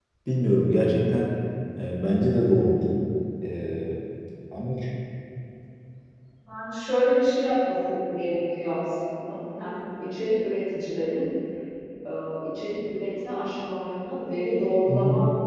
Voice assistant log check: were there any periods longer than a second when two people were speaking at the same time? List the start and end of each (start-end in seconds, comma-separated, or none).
none